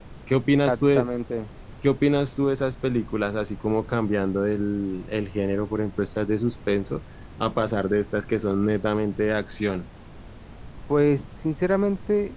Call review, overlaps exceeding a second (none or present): none